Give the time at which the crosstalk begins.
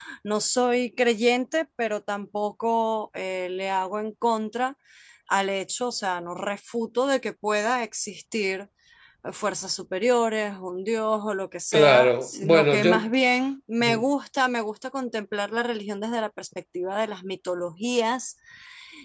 11.7 s

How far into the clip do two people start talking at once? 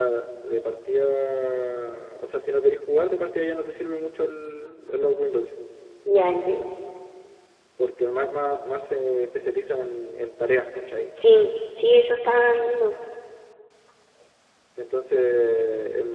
none

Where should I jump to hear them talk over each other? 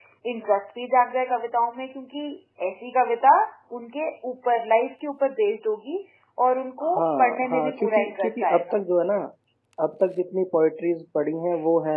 7.0 s

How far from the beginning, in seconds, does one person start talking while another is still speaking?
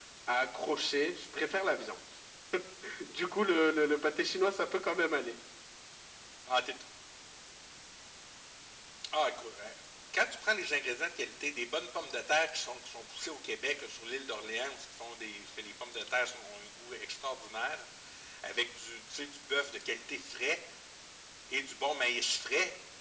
none

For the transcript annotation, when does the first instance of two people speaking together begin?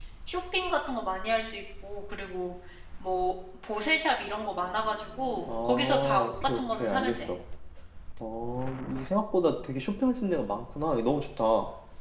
5.5 s

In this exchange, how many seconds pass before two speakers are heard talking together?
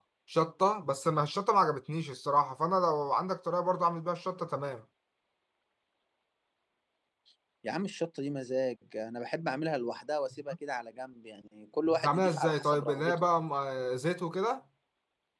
11.9 s

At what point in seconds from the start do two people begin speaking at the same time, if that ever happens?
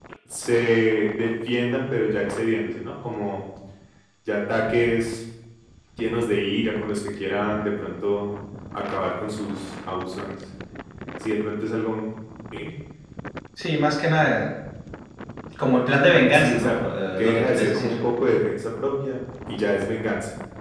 16.3 s

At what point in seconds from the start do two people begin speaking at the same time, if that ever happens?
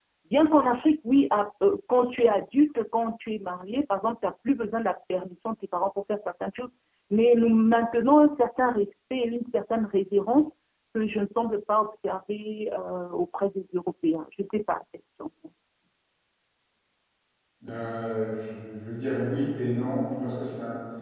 none

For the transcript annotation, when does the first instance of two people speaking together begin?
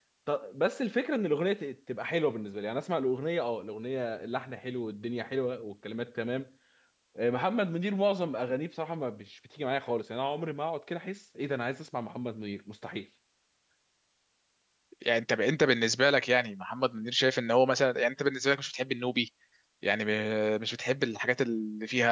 none

